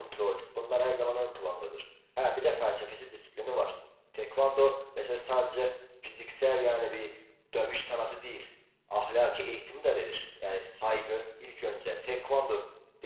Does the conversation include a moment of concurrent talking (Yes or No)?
No